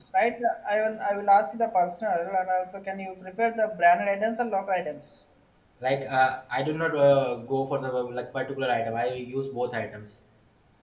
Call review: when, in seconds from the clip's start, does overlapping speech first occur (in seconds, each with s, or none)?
none